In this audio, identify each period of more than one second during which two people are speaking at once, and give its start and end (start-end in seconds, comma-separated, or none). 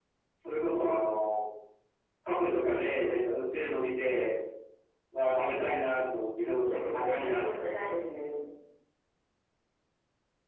6.4-7.7